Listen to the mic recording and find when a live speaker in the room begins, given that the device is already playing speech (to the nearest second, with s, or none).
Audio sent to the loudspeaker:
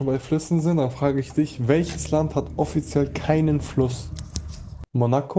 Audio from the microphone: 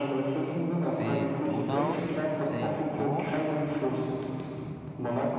1 s